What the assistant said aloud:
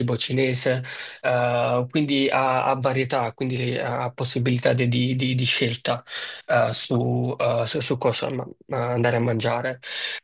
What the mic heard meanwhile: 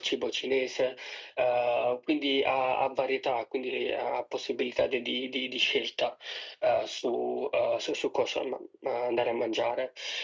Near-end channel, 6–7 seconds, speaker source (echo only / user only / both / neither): echo only